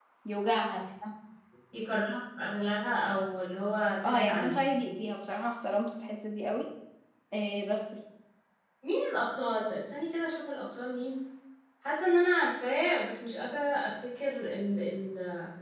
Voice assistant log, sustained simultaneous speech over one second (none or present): none